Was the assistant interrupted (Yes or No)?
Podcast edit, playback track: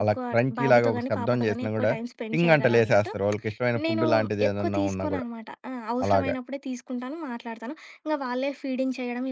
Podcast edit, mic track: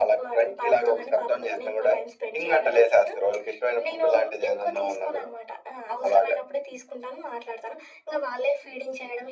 No